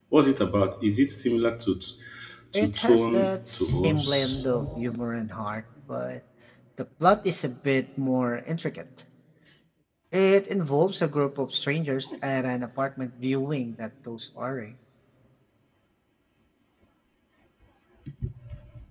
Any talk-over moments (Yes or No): Yes